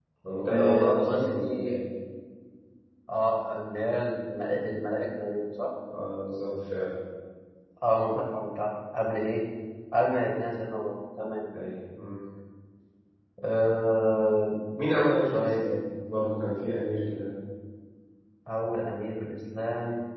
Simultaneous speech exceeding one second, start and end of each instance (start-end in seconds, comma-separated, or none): 0.5-1.8